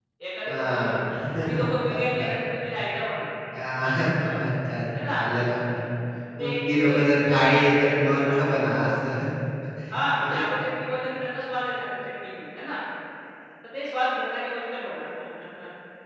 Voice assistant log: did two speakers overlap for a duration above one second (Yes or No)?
Yes